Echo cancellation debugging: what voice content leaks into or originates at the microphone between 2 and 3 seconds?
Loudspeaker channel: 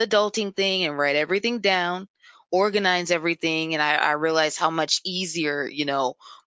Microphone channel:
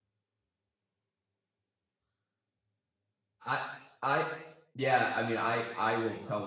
neither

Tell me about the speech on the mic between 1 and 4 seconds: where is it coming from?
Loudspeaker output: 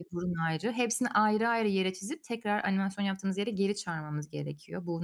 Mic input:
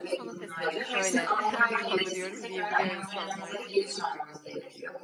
both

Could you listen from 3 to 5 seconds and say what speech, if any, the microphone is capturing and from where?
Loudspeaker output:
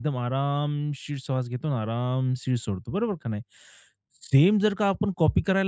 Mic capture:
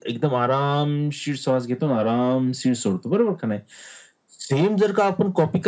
echo only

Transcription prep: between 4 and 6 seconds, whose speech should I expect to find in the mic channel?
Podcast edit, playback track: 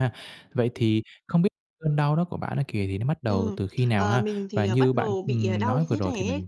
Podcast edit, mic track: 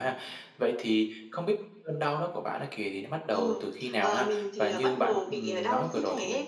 echo only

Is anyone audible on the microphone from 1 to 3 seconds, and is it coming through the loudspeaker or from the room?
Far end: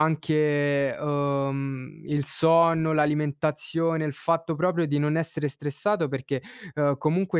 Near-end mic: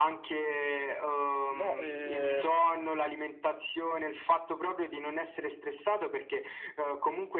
both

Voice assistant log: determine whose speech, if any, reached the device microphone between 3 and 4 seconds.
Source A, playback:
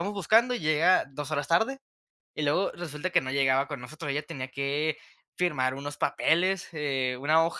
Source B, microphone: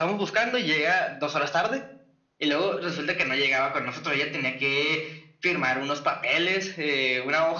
echo only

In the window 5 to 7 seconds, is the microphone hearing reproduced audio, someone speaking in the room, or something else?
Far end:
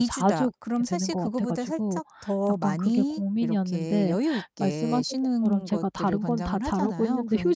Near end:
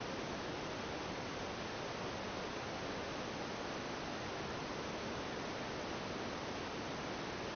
neither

